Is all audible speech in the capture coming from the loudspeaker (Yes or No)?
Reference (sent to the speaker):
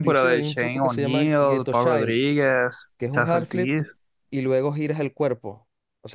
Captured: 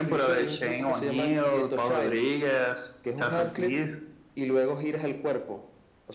Yes